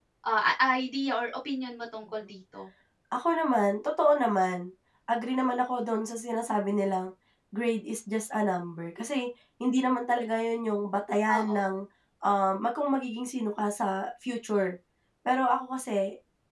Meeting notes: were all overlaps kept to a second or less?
Yes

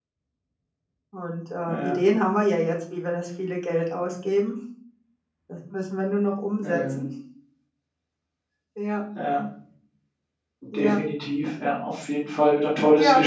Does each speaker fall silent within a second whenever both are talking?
Yes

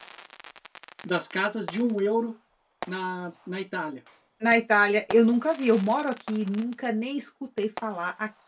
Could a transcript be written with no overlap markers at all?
Yes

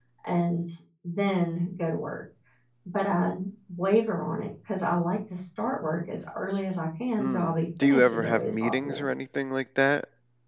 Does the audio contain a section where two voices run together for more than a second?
Yes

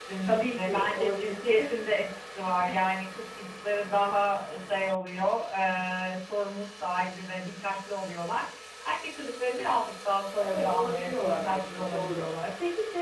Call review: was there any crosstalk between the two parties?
Yes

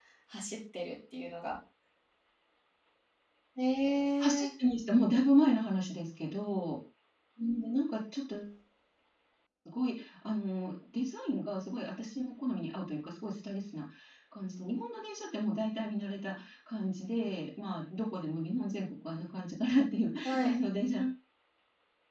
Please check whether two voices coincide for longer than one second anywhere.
No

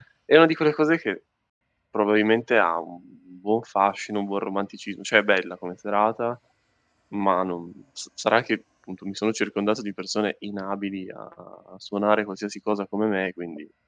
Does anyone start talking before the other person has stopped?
No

